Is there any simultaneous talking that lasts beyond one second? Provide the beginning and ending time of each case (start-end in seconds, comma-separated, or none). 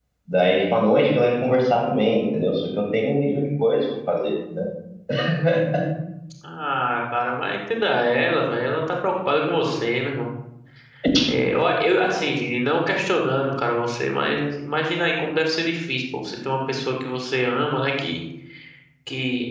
none